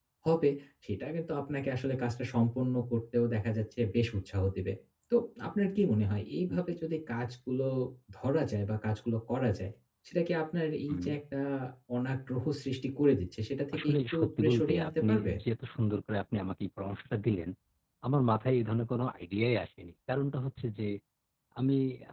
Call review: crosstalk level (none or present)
present